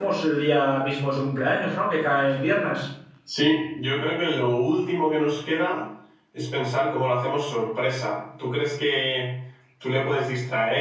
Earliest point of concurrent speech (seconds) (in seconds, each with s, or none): none